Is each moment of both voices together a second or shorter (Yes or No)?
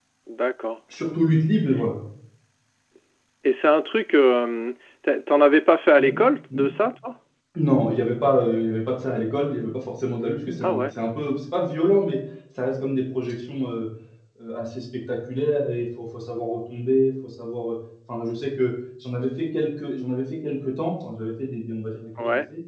Yes